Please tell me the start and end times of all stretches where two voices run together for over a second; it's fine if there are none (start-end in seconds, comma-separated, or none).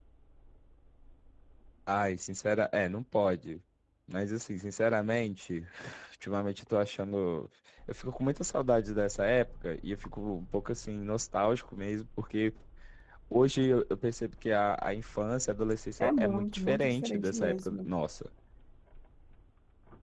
16.0-17.9